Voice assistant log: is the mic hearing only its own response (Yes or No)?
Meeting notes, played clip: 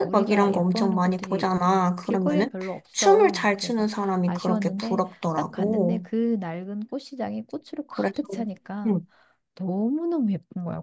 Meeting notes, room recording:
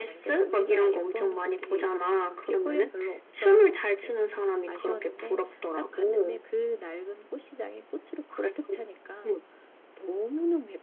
Yes